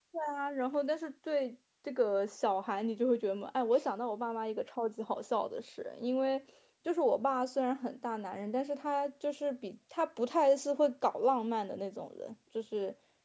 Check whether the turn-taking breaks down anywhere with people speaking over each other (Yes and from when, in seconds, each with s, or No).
No